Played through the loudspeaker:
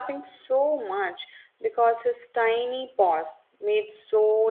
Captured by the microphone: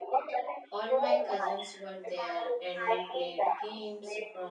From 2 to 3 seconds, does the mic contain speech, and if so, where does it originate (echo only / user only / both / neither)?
both